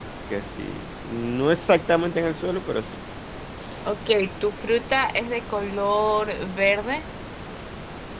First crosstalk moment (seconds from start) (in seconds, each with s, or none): none